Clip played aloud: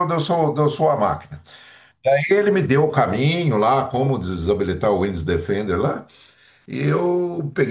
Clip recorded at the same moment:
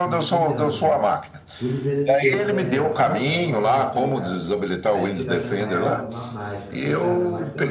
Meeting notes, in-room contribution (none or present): present